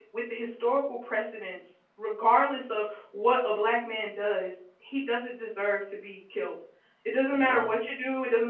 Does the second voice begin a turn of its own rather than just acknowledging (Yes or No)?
No